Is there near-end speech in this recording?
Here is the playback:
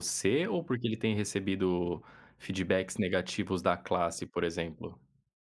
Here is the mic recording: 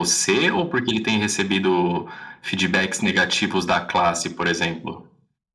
No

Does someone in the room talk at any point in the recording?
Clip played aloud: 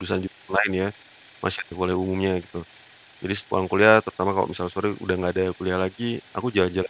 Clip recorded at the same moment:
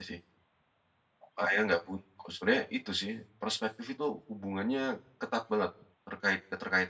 Yes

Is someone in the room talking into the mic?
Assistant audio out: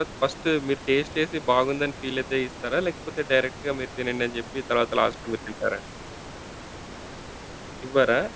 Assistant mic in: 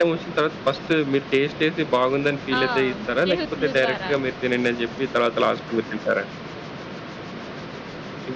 Yes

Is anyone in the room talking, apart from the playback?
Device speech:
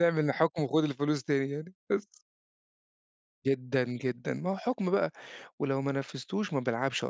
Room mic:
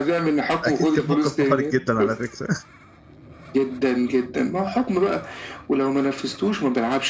Yes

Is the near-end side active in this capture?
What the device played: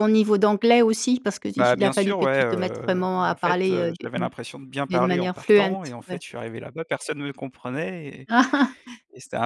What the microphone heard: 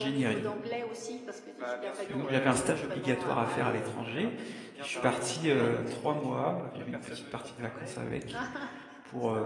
Yes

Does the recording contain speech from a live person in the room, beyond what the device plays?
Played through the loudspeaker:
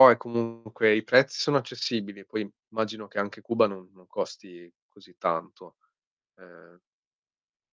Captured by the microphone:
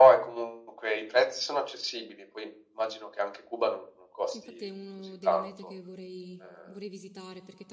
Yes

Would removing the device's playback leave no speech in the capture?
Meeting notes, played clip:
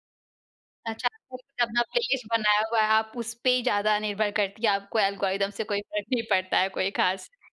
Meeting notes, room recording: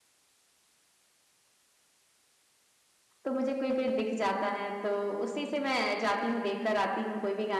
No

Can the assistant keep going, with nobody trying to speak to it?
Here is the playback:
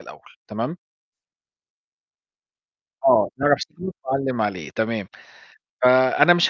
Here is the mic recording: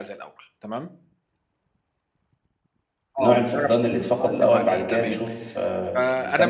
No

